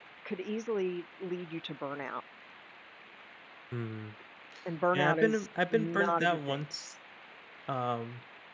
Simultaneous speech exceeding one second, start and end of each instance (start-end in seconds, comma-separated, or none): 4.9-6.6